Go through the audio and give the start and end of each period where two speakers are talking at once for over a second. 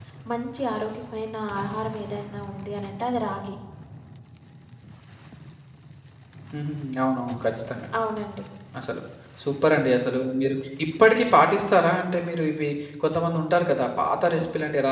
none

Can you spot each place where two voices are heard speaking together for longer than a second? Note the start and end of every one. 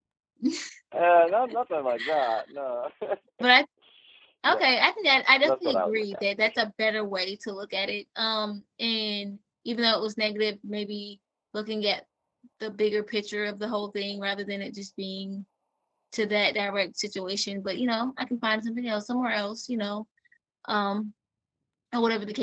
5.1-6.6

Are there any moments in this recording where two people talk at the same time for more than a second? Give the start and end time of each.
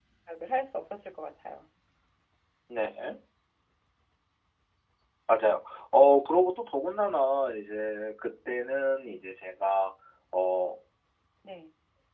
none

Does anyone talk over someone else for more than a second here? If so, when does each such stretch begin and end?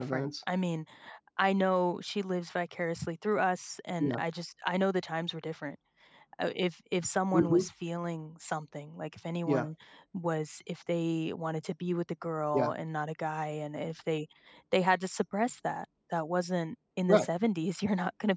none

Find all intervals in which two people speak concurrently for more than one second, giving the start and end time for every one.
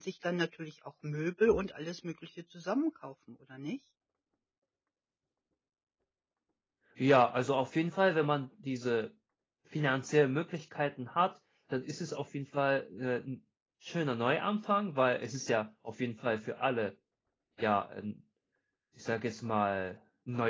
none

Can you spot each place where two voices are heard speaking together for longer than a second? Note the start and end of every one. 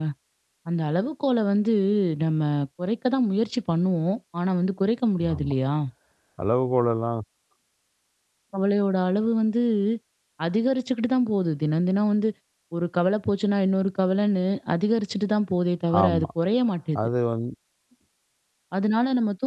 none

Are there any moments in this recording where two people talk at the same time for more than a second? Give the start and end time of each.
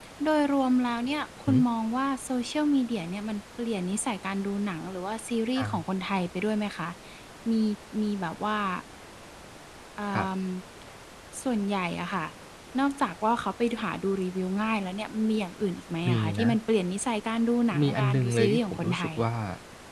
17.8-19.1

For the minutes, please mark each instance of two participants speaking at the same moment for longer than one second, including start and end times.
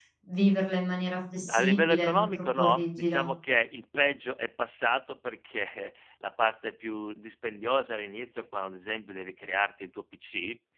1.5-3.2

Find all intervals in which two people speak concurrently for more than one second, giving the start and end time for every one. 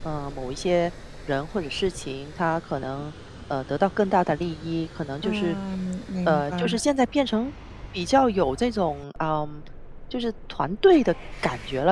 none

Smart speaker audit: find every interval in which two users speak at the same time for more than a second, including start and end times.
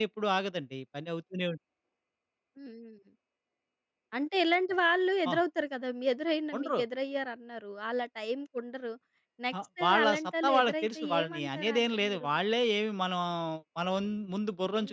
9.8-12.3

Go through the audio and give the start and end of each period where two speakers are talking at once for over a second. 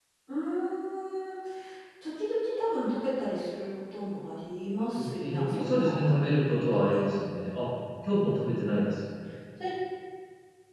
5.0-6.2

